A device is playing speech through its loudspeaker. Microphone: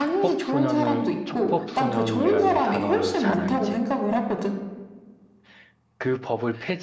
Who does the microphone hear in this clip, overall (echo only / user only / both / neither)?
both